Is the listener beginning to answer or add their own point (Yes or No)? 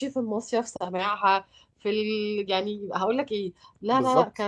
No